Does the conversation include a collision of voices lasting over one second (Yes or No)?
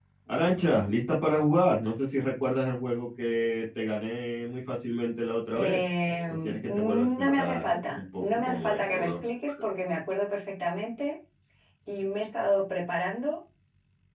Yes